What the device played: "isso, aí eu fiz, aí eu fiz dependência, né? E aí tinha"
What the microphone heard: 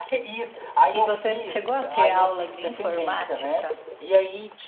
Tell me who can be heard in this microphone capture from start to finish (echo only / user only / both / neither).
both